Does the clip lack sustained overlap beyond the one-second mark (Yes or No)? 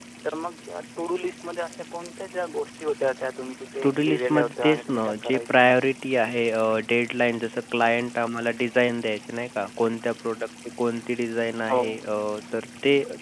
No